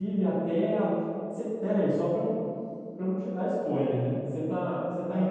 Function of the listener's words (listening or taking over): taking over